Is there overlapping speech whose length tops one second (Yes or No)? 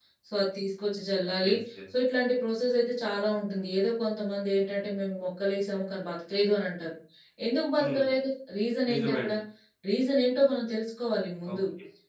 No